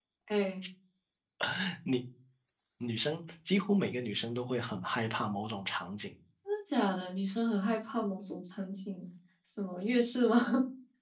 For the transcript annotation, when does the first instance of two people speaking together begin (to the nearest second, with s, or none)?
none